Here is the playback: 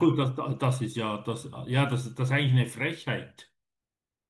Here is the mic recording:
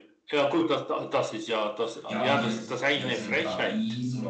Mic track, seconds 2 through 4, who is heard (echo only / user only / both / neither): both